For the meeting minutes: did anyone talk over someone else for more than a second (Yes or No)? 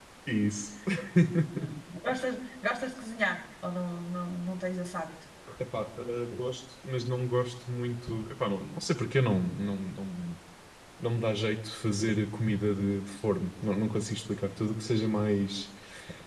No